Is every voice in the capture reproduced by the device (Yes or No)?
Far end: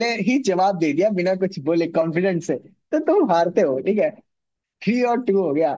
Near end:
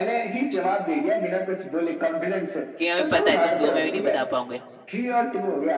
No